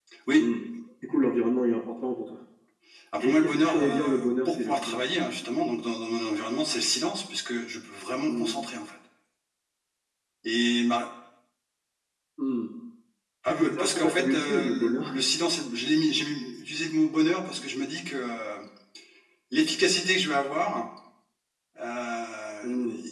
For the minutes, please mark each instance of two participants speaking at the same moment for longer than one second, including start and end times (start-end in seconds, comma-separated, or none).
3.2-5.1, 13.5-15.3